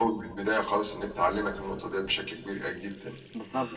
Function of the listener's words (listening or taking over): taking over